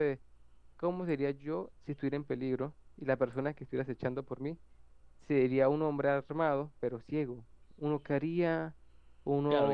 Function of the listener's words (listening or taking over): taking over